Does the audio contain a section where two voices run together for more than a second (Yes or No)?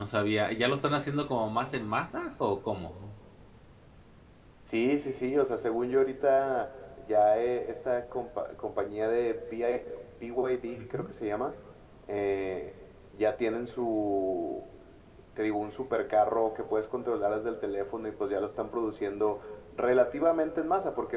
No